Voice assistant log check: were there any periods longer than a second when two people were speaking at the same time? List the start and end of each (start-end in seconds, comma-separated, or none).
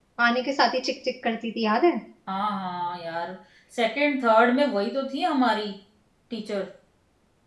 none